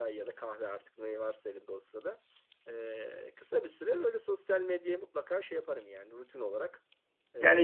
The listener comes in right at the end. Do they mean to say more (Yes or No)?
Yes